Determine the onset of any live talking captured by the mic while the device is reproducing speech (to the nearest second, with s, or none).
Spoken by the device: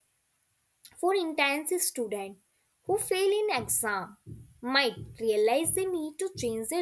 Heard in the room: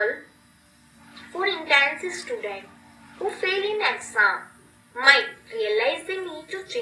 none